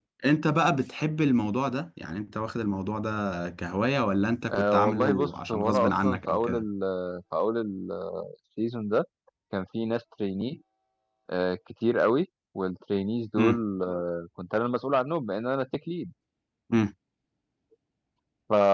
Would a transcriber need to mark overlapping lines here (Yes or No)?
Yes